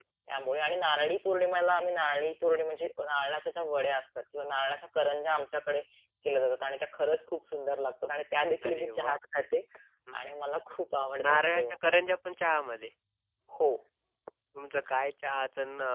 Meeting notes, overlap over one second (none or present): none